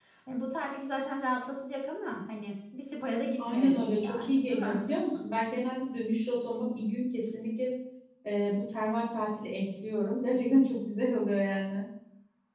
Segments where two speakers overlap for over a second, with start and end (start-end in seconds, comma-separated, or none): 3.4-4.9